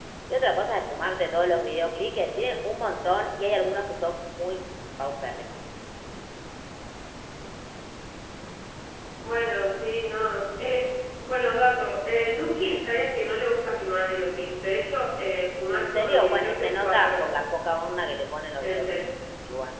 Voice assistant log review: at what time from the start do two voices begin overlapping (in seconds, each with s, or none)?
15.7 s